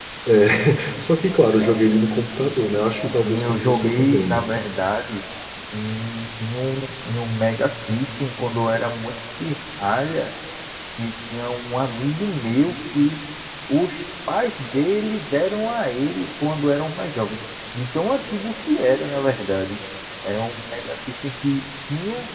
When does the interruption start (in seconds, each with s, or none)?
3.2 s